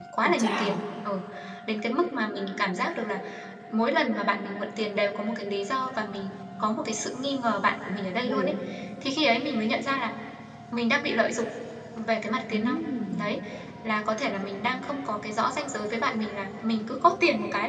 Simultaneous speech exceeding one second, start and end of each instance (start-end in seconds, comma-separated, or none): none